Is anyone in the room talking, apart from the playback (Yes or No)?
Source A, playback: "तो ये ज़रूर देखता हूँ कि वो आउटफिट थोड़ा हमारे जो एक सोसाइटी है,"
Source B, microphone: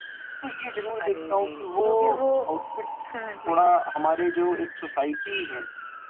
Yes